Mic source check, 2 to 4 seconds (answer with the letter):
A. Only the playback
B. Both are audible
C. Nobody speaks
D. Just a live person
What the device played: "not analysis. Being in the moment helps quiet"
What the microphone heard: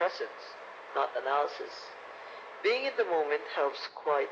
A